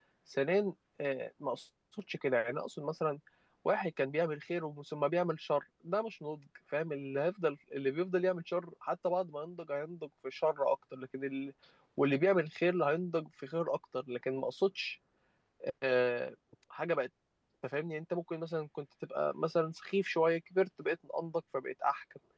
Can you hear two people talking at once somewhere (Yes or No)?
No